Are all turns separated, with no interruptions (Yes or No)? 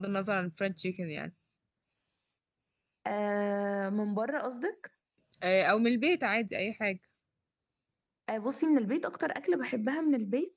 Yes